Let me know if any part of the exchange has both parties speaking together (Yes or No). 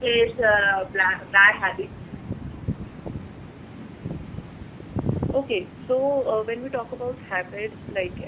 No